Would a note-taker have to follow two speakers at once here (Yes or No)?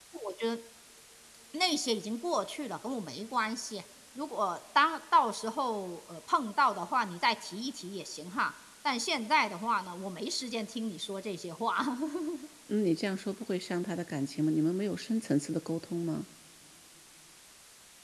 No